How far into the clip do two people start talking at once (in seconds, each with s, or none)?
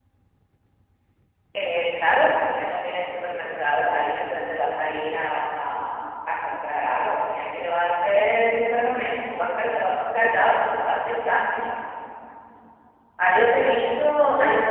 none